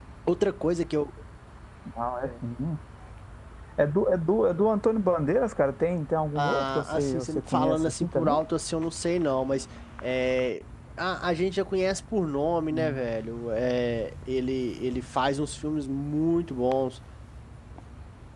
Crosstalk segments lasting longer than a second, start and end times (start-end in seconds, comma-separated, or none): 6.3-8.4